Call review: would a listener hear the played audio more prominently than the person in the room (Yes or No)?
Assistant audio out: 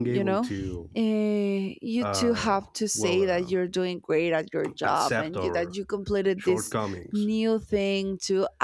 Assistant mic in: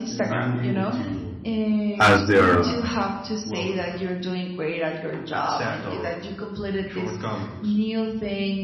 No